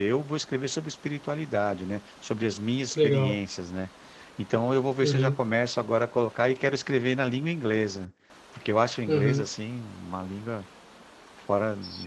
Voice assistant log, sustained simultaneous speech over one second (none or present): none